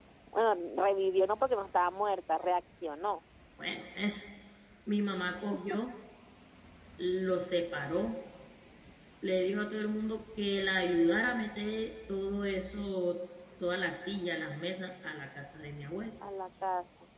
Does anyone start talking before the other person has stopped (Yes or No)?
No